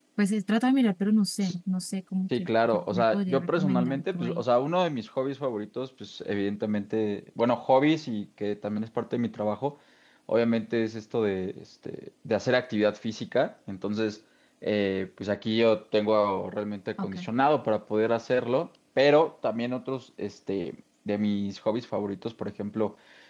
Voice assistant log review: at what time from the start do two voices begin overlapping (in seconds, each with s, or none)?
2.4 s